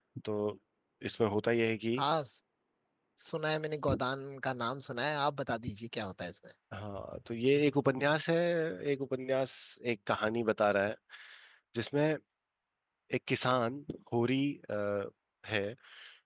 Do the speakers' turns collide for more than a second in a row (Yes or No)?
No